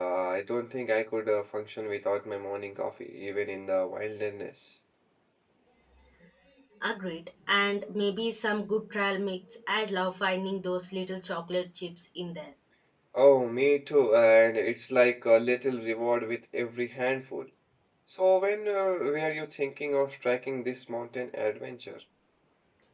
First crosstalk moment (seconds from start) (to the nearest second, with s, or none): none